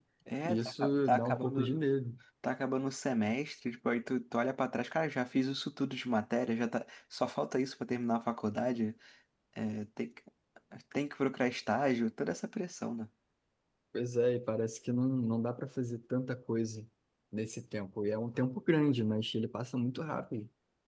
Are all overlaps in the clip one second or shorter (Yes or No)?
No